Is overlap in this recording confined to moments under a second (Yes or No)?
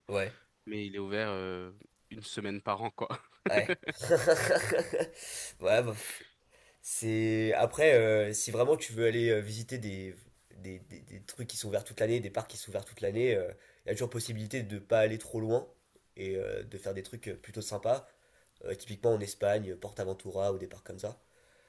Yes